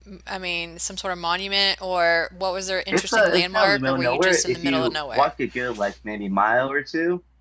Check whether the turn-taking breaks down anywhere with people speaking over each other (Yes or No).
Yes